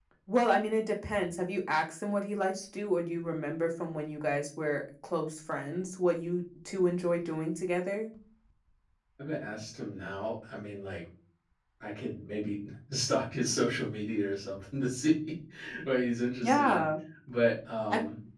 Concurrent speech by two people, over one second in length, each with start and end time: none

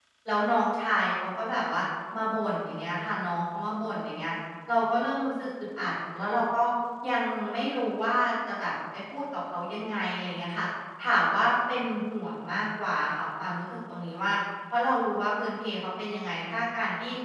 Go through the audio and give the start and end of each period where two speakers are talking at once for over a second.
none

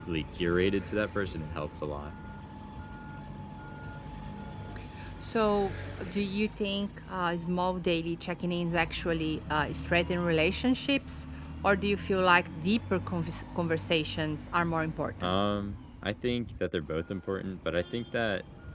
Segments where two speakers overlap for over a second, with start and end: none

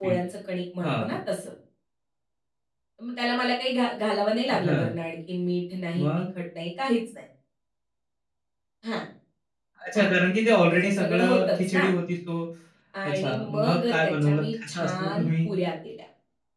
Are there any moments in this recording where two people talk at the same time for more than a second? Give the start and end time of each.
10.7-11.9, 13.1-15.5

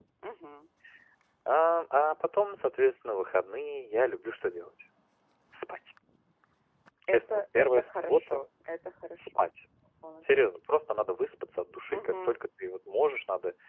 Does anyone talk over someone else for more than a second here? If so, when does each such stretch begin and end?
7.1-8.5

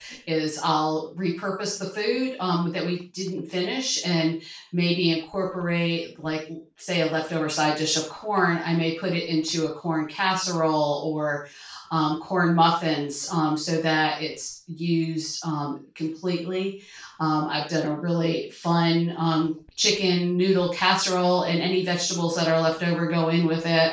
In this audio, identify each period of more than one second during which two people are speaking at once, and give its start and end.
none

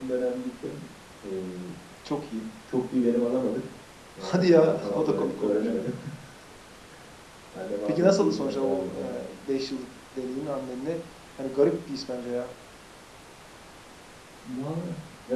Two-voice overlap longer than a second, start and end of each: 4.2-5.7, 7.8-9.2

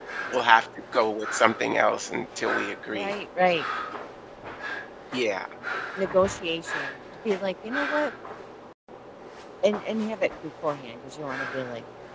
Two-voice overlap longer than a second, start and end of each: none

